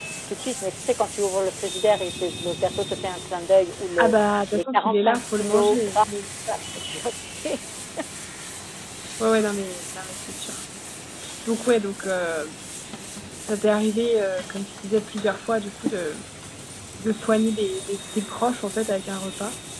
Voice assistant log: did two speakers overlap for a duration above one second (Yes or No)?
Yes